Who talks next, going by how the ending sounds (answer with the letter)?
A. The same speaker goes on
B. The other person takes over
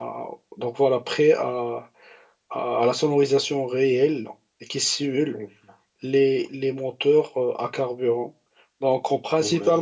A